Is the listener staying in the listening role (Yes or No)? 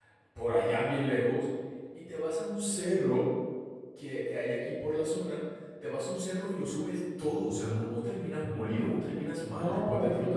No